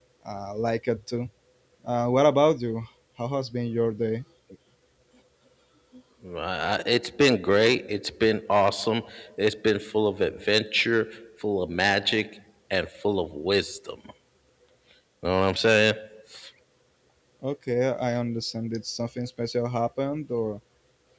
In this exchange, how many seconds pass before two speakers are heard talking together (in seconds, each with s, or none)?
none